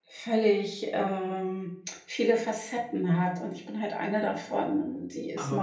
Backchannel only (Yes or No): Yes